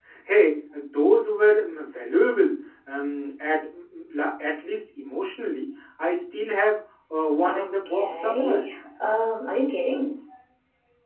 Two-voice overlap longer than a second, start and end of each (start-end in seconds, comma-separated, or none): 7.4-8.7